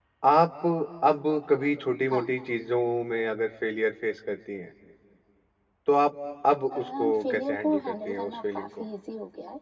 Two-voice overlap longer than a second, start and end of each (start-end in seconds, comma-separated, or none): 6.8-8.8